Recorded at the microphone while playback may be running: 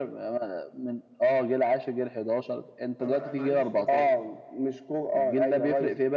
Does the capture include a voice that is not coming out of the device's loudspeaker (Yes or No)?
Yes